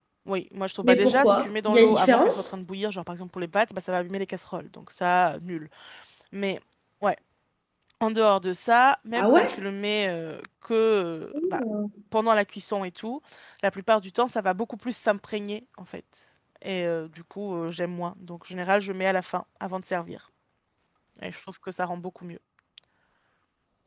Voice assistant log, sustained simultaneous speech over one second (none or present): present